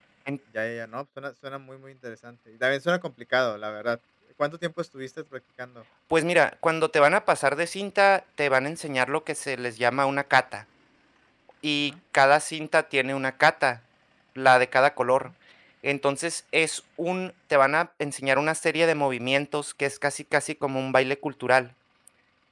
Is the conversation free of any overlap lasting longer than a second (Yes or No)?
Yes